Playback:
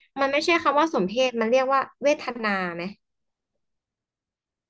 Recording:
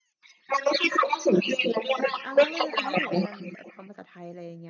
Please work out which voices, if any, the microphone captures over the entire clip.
both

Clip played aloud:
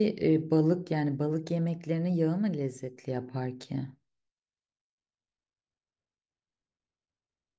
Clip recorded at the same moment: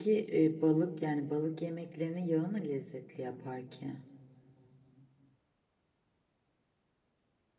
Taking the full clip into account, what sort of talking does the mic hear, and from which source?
echo only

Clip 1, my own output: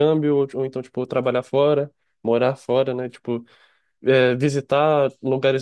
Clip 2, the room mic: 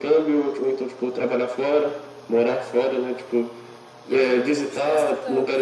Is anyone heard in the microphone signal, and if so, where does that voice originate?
both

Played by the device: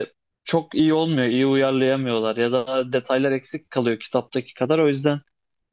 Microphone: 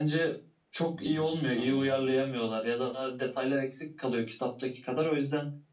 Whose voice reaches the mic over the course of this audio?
both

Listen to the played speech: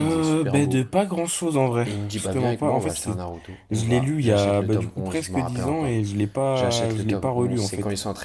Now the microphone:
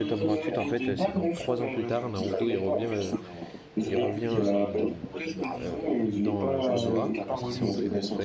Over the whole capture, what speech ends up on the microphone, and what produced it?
both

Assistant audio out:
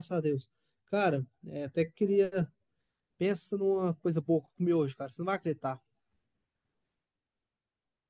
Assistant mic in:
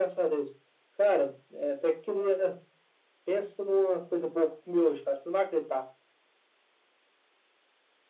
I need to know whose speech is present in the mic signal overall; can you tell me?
echo only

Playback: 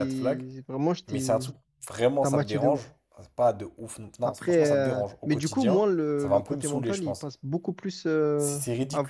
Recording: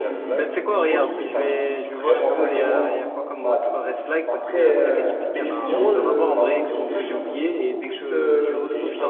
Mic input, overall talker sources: both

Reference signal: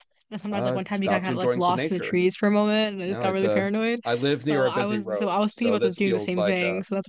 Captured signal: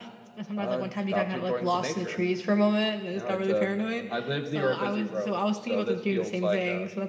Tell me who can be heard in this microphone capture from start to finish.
echo only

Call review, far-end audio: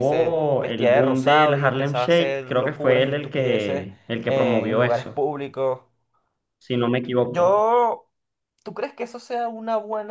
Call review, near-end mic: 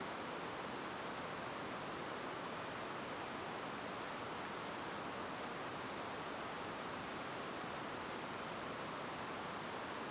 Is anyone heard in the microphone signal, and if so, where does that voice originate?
neither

